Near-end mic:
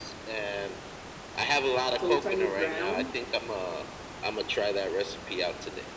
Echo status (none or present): present